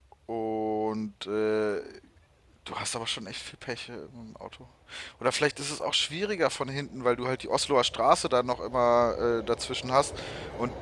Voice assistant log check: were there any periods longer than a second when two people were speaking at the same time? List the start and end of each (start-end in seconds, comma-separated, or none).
none